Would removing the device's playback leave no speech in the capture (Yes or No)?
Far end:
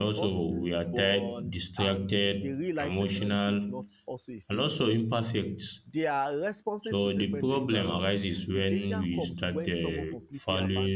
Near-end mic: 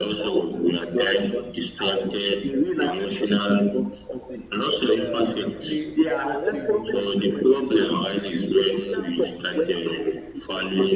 No